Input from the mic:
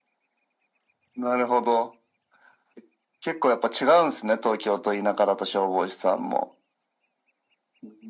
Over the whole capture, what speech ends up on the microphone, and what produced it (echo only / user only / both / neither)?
echo only